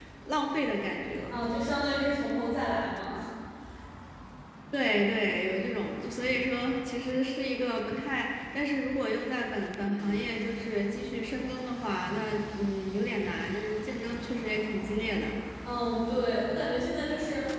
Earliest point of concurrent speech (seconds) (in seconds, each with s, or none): none